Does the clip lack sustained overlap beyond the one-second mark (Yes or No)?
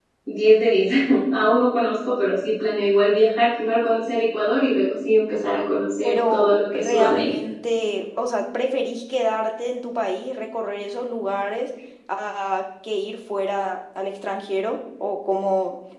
No